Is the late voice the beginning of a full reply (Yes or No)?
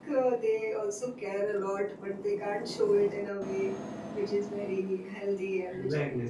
Yes